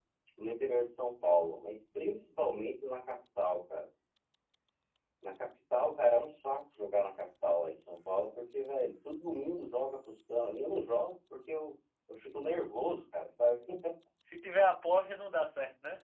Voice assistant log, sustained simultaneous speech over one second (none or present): none